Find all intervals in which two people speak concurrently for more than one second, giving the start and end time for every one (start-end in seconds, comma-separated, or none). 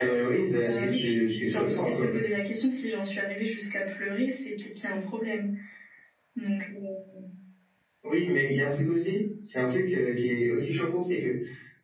0.6-2.1